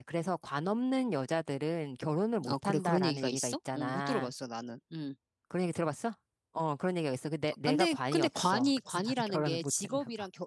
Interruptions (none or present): present